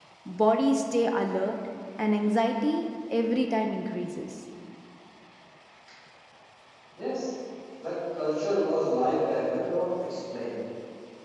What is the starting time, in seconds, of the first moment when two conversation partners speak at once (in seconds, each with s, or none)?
none